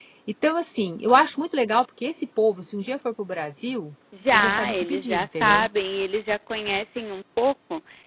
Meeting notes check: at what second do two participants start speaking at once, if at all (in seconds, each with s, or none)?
4.1 s